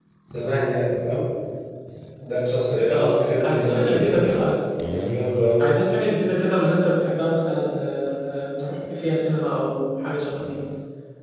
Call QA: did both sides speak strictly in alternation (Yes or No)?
No